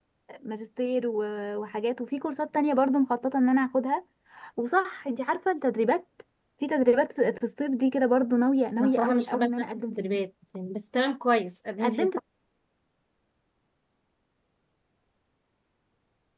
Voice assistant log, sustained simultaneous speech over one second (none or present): present